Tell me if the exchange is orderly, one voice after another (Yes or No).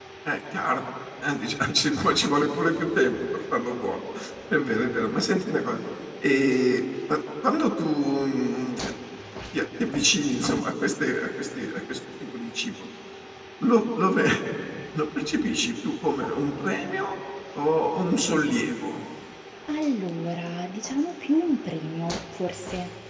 Yes